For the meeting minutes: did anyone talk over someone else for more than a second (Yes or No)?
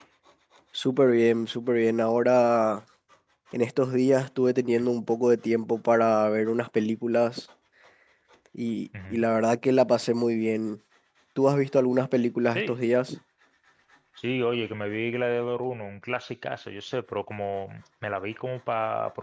No